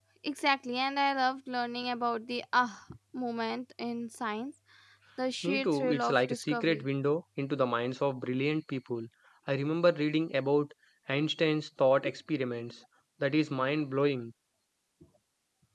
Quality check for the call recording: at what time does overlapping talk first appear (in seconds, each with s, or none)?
5.4 s